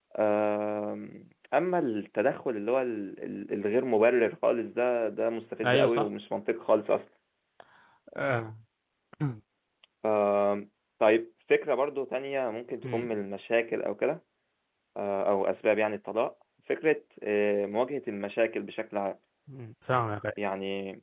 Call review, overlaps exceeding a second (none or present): none